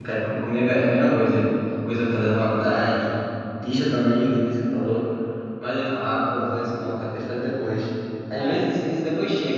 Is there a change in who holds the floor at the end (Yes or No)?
No